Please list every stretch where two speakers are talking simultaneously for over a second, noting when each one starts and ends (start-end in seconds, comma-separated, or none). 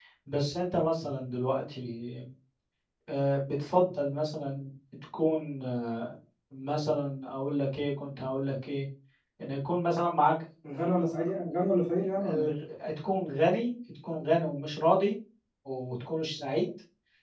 none